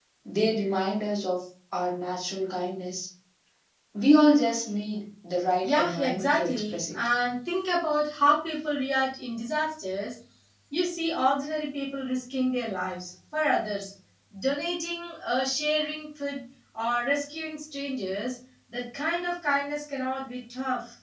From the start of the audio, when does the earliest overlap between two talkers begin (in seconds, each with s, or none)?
5.6 s